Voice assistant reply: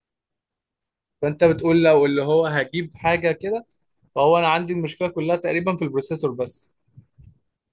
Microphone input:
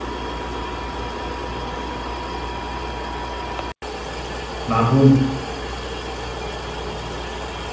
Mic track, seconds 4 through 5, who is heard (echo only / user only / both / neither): user only